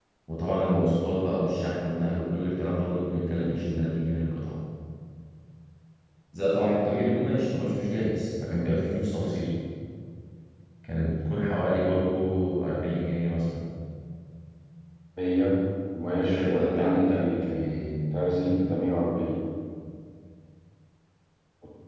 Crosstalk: present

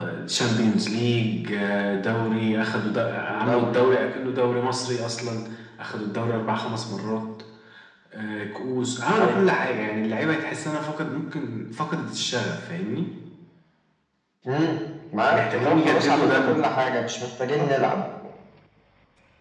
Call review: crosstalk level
present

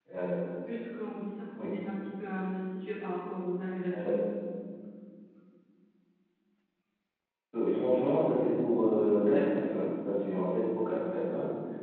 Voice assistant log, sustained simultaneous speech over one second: none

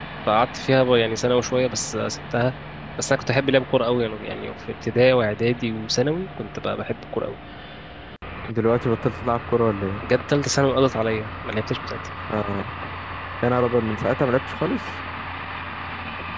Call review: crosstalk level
none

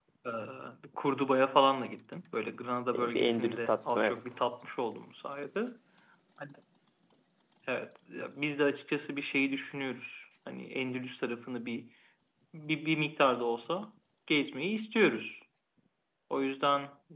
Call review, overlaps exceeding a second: present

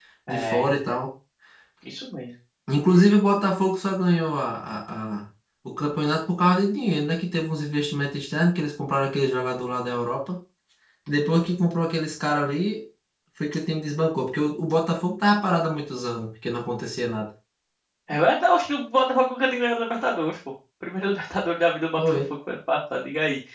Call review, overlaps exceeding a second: none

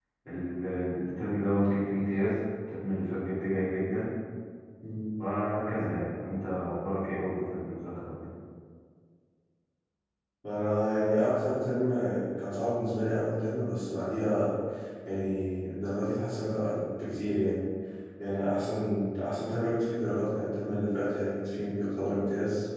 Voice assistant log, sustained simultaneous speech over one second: none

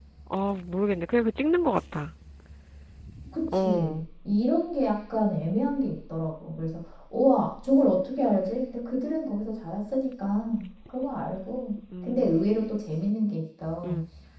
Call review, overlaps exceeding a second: none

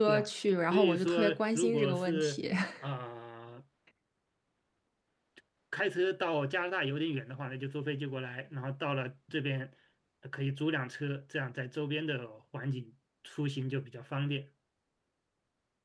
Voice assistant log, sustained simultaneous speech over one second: present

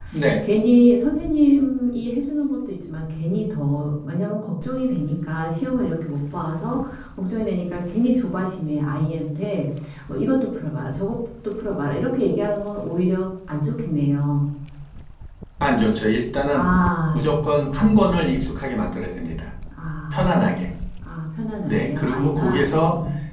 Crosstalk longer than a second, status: present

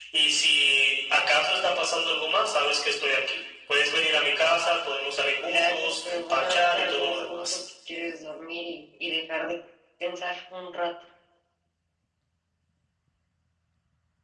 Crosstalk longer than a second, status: present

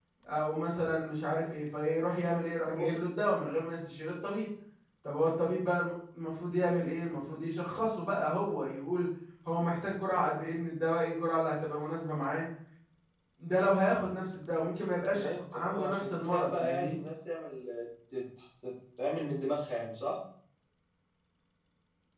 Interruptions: present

